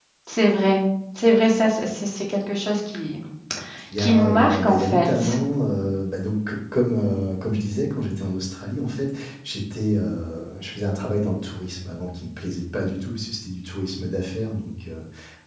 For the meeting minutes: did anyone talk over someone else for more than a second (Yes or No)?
Yes